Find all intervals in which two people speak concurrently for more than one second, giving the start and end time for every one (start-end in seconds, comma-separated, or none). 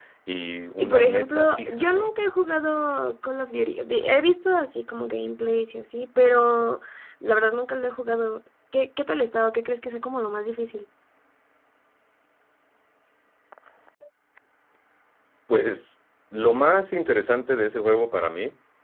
0.8-2.1